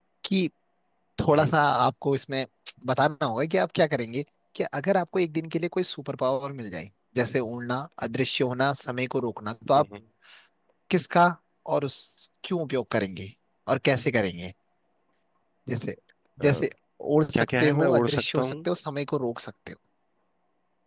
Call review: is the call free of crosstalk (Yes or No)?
No